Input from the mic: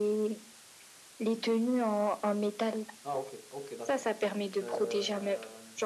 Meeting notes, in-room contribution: none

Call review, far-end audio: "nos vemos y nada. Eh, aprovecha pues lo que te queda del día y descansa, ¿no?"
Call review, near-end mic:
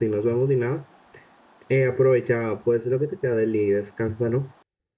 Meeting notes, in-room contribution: none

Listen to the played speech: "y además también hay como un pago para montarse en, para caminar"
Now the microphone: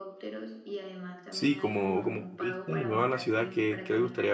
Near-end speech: present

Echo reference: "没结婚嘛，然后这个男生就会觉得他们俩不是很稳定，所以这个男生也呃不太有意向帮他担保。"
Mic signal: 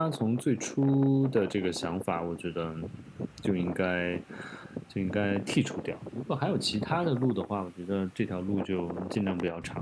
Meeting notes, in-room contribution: present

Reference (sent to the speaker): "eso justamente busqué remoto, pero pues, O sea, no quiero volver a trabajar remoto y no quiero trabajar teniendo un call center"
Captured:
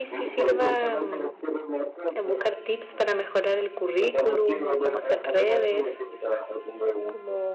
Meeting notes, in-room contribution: present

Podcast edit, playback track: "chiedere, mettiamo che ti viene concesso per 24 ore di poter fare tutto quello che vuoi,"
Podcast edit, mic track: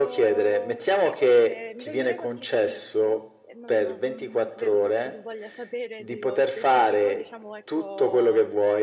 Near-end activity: present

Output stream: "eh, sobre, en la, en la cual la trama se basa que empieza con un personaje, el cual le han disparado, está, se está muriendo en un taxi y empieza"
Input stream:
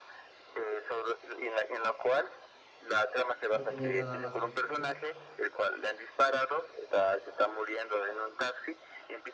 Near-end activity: present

